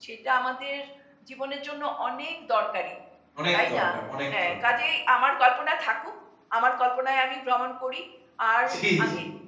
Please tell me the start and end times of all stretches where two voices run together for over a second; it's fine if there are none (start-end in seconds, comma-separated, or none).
none